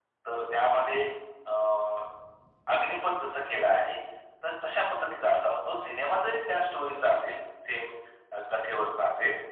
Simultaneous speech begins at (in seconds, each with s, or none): none